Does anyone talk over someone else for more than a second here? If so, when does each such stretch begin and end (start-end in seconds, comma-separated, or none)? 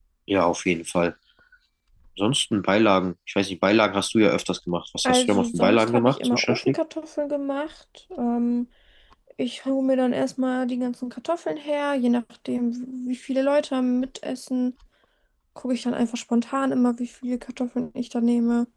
5.0-6.7